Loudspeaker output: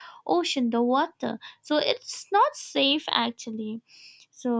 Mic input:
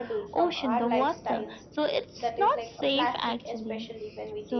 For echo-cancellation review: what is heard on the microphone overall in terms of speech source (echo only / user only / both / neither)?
both